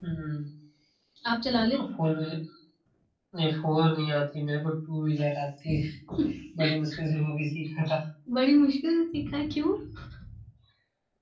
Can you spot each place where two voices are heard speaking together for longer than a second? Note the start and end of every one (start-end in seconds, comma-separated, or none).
none